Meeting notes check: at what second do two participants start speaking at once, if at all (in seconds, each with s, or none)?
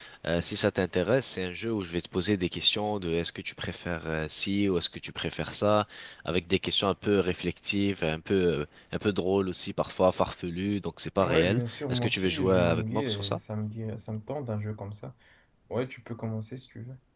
11.2 s